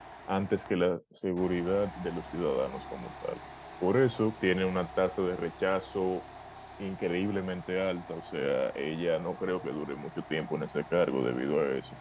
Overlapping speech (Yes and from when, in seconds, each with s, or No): No